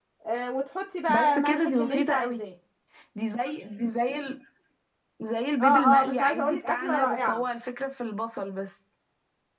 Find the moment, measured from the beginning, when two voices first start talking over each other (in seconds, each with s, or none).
1.1 s